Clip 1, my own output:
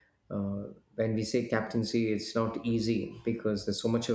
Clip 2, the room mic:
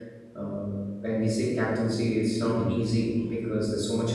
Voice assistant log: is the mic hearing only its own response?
No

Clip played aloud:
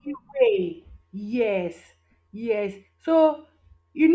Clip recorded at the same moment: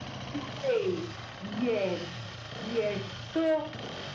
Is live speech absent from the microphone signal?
Yes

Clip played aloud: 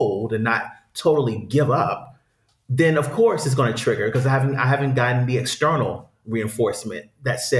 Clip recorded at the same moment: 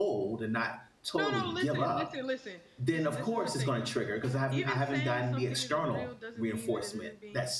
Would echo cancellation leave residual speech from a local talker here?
Yes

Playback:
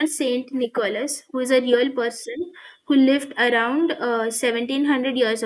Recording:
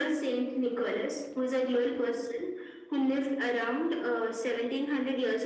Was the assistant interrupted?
No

